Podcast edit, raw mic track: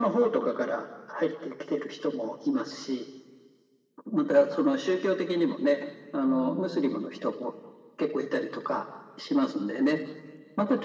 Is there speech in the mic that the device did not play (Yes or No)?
Yes